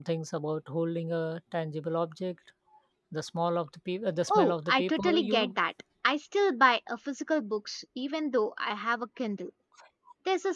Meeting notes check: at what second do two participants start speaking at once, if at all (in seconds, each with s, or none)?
4.3 s